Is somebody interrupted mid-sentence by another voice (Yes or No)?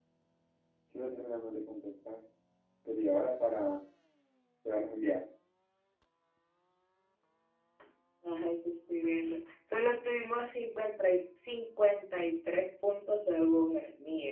No